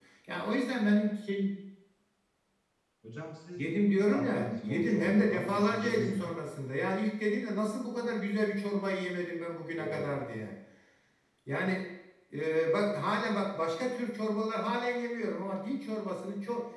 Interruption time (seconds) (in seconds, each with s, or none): 4.1 s